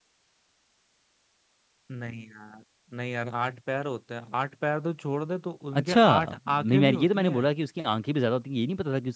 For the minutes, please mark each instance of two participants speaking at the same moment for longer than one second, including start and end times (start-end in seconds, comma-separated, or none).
5.7-7.5